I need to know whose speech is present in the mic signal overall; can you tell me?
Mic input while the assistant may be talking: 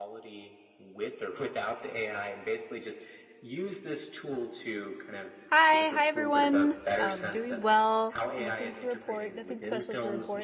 both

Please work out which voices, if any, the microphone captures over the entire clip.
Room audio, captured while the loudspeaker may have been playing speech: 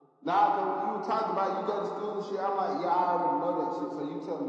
echo only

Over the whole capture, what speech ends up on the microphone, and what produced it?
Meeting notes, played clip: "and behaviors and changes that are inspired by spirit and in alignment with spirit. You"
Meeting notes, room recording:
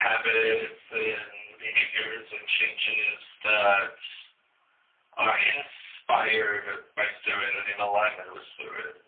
echo only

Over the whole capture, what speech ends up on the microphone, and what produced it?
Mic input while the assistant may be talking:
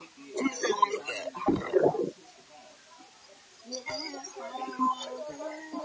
both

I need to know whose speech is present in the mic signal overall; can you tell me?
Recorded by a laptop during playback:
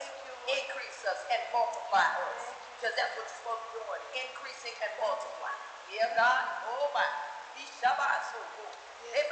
echo only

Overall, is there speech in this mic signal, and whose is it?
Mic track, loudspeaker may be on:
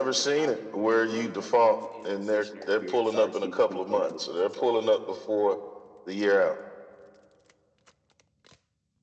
both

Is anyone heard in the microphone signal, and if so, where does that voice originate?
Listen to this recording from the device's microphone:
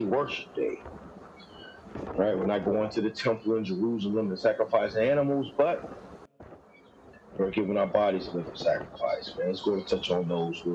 echo only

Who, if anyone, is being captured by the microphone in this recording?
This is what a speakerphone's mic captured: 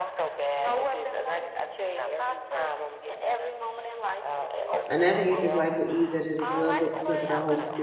both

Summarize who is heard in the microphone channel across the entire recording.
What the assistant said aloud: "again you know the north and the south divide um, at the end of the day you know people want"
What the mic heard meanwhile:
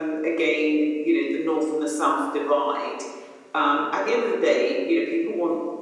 echo only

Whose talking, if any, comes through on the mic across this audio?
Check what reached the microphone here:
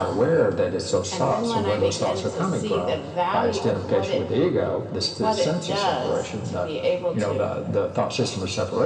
echo only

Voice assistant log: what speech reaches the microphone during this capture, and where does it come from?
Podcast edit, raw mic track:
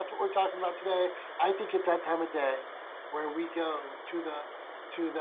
user only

